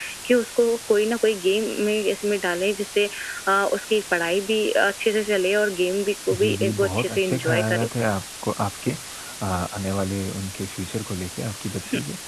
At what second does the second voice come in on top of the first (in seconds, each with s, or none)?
6.3 s